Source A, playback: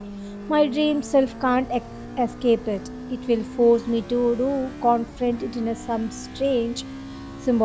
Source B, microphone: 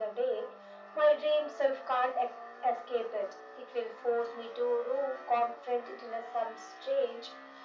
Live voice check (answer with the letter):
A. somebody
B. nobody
B